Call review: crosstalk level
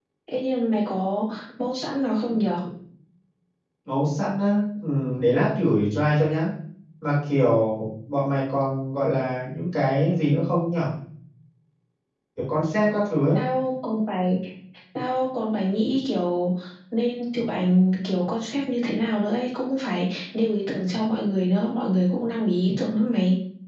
none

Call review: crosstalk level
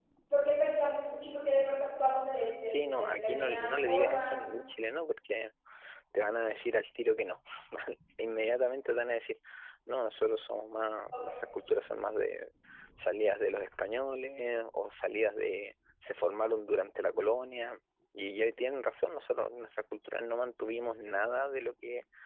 present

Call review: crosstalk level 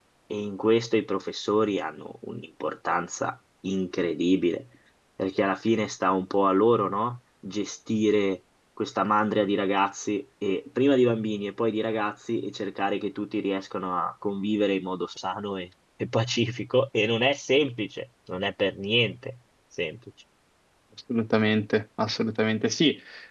none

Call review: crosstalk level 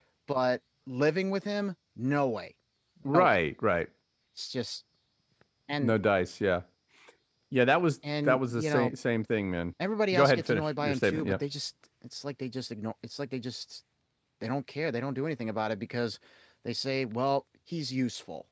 present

